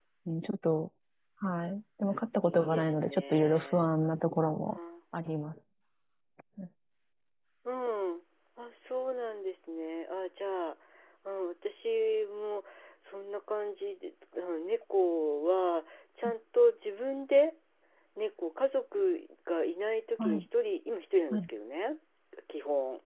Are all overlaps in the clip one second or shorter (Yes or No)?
No